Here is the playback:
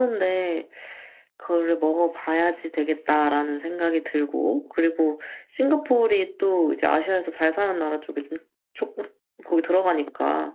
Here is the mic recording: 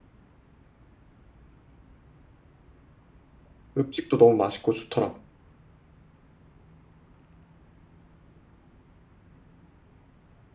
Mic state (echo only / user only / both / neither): user only